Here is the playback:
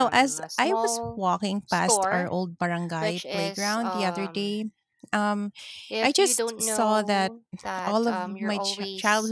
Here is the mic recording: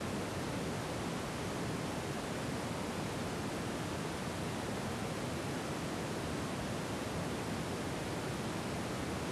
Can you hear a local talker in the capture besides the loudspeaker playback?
No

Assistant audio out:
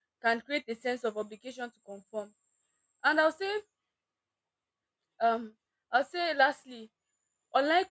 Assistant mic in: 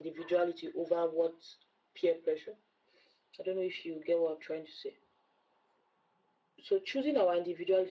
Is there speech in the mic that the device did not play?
Yes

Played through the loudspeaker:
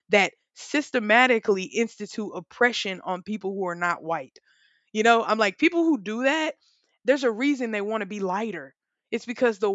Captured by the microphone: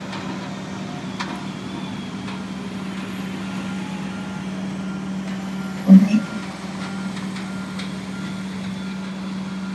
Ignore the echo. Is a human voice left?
Yes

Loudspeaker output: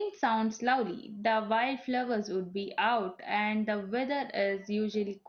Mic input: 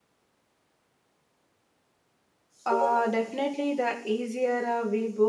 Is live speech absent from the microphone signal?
No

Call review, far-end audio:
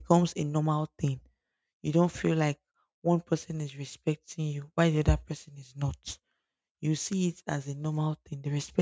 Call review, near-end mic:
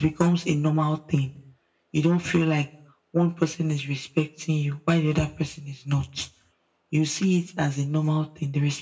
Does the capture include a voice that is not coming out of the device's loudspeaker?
No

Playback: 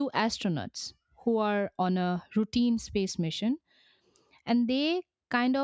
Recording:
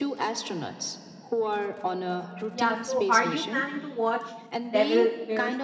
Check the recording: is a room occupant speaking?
Yes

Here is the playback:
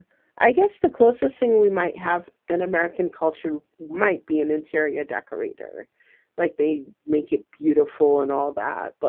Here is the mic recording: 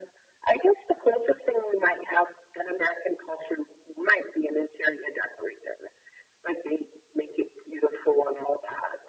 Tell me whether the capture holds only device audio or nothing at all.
Yes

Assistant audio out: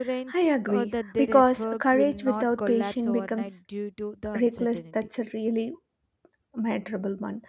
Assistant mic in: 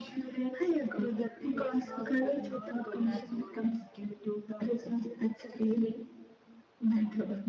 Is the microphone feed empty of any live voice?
Yes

